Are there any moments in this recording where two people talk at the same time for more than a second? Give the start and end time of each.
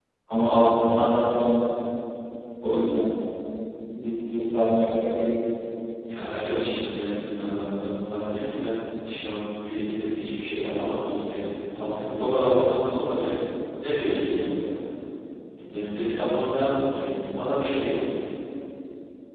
none

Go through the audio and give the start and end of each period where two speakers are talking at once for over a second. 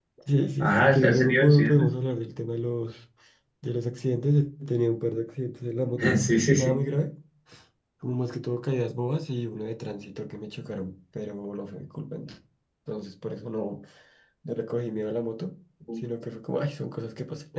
0.6-1.9

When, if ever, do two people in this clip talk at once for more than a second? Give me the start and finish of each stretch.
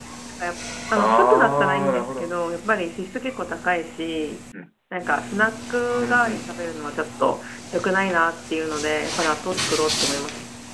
1.0-2.3

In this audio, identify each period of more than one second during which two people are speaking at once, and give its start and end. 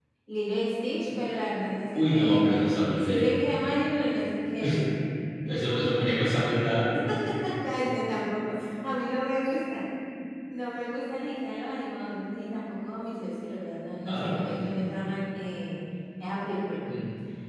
1.9-3.4

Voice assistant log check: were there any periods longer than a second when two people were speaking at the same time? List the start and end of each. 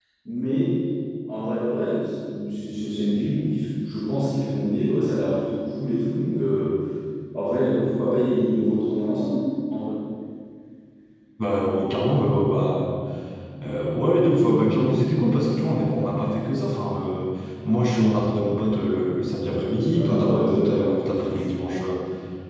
19.9-21.4

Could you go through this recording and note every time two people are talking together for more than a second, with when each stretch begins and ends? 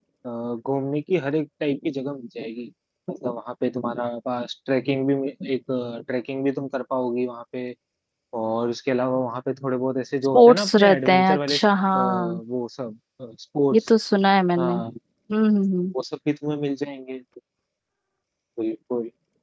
10.3-11.6

